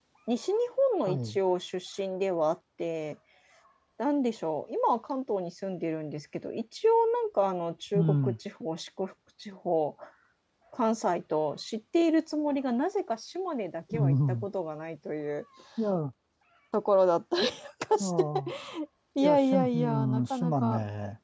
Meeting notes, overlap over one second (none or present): present